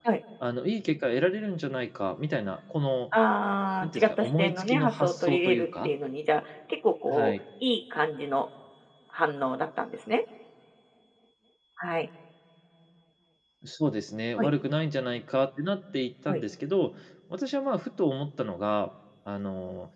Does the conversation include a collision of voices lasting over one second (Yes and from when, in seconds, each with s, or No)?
Yes, from 3.8 s